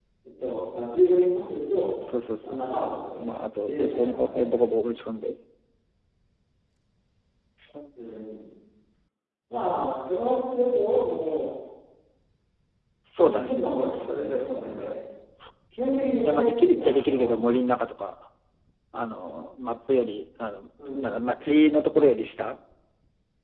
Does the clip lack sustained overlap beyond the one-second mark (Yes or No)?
No